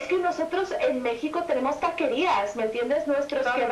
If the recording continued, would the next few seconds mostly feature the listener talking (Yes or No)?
No